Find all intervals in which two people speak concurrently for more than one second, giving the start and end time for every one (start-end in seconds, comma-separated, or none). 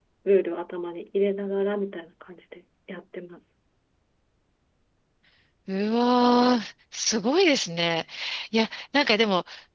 none